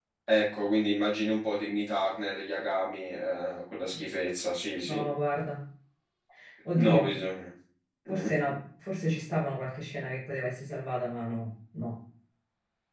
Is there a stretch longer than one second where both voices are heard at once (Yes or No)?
No